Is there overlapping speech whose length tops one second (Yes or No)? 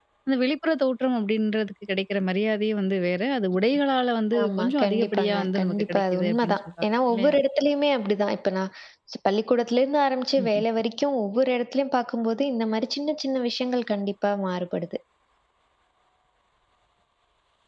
Yes